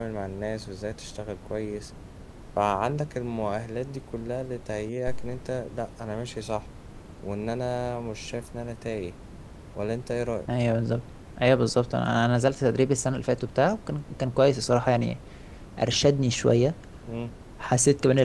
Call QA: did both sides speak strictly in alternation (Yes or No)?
Yes